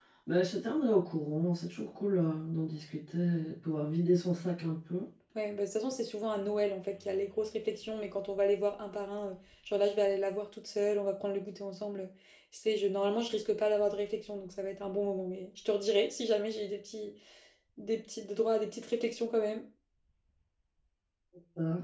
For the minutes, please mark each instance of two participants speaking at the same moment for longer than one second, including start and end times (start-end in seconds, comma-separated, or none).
none